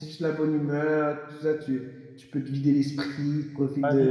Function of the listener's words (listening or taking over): taking over